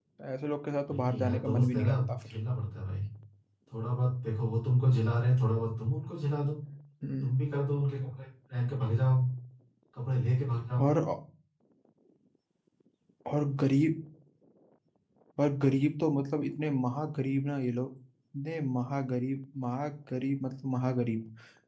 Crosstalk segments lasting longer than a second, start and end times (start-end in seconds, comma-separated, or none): 0.9-2.4